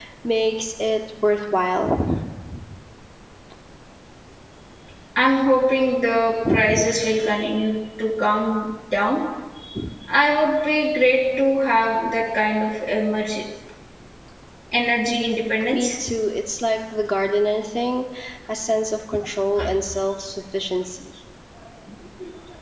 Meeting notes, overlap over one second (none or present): none